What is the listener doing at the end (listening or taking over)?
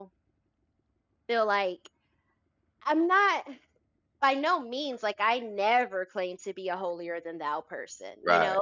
listening